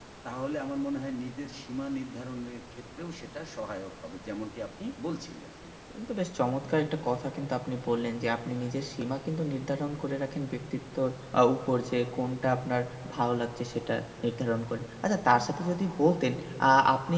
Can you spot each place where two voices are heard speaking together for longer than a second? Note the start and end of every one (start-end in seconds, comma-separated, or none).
none